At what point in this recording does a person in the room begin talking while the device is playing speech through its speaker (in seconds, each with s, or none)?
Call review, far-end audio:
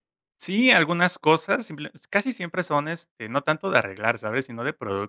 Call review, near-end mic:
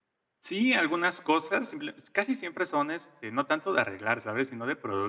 none